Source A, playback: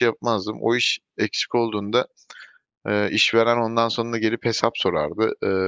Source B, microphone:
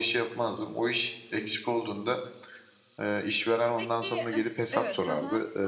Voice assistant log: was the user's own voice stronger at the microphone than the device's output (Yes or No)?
No